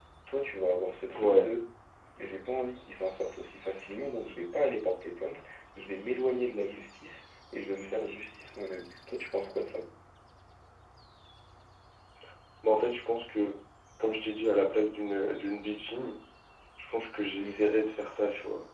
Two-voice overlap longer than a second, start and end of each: none

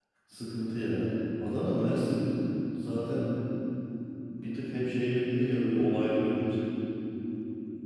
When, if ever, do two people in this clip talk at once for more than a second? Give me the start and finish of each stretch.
none

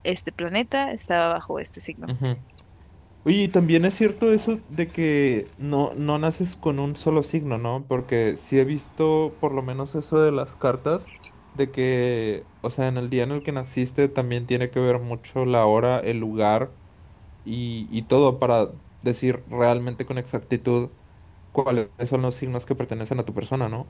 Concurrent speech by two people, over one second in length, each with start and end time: none

